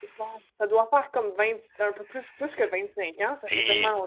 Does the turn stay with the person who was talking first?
No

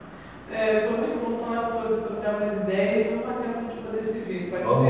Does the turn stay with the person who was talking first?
No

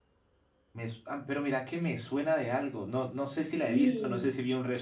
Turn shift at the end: No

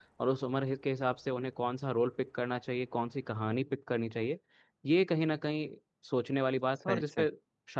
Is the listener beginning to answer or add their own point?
No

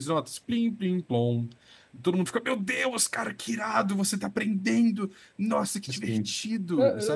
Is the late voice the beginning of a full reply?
Yes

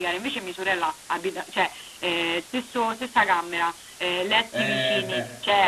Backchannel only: No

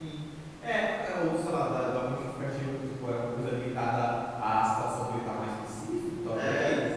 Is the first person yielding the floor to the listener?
Yes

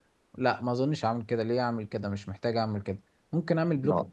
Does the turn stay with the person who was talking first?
Yes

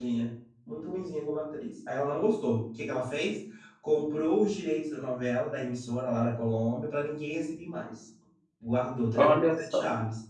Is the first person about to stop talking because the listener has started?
No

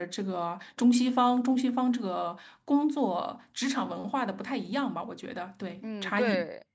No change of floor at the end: No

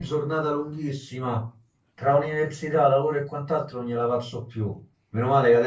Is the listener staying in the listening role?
Yes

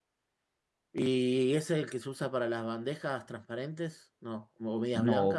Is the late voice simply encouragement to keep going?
No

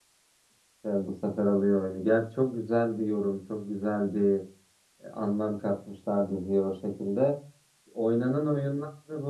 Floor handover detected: No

